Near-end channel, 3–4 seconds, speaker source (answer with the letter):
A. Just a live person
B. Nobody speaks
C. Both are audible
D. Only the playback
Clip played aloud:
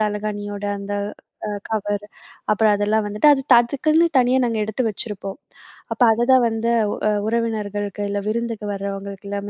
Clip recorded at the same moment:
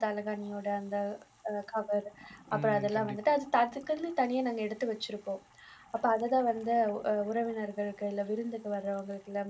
C